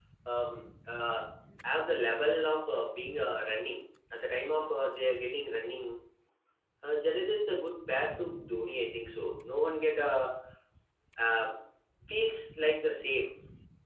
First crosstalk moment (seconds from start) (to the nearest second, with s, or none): none